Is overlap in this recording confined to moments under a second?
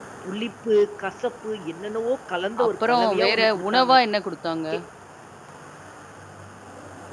No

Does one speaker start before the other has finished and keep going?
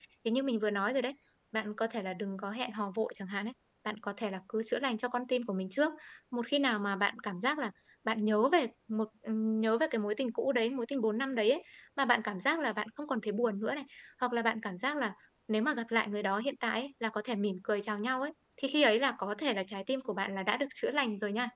No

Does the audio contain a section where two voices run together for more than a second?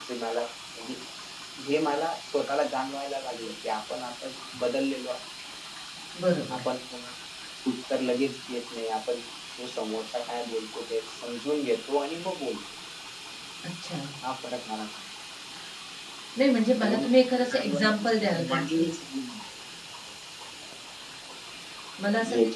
Yes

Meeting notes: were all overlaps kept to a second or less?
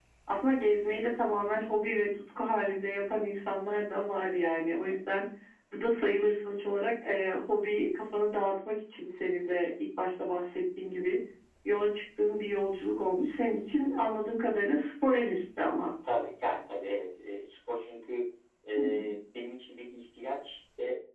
Yes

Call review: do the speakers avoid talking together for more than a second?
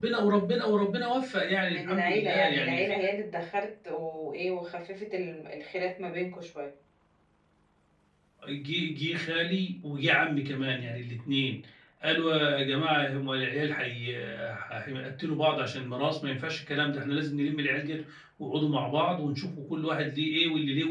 No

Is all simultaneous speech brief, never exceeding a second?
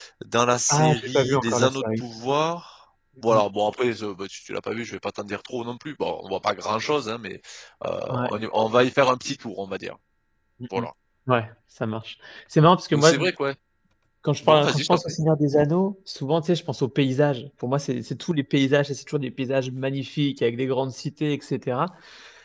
No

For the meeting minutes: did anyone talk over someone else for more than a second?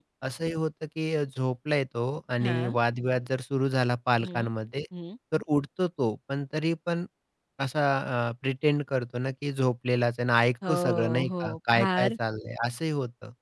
Yes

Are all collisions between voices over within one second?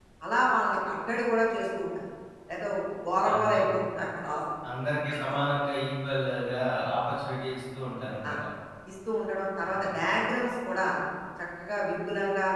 Yes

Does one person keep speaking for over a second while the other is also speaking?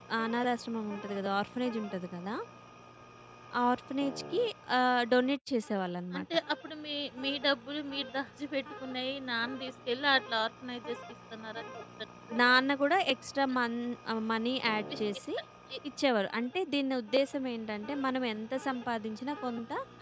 No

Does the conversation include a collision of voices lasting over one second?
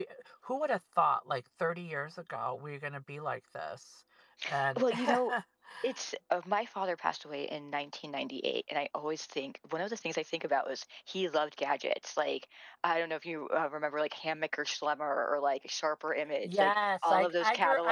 Yes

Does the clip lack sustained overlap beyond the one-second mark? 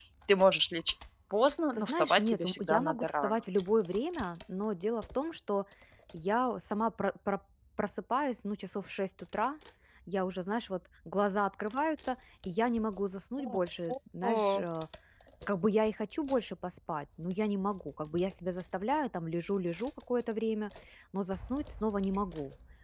No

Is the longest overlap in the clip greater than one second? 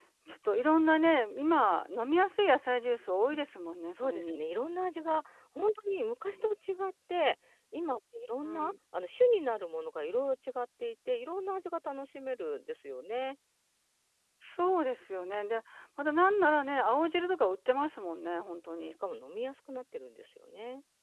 No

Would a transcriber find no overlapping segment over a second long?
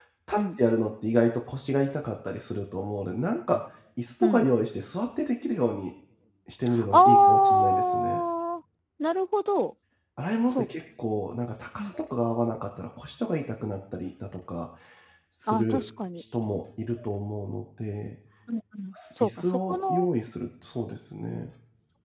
No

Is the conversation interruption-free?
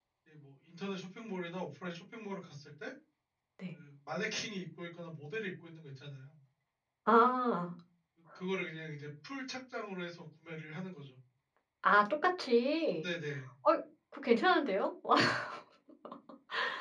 Yes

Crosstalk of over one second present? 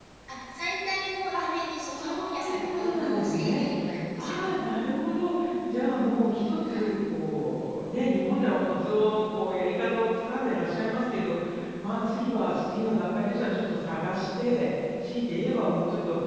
Yes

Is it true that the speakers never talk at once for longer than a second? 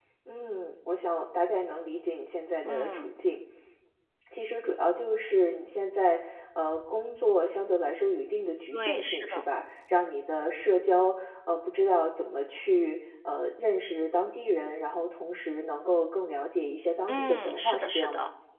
No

